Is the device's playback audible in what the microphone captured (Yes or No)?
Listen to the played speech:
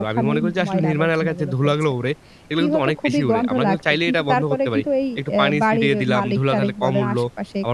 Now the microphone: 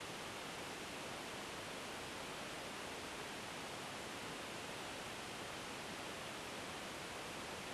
No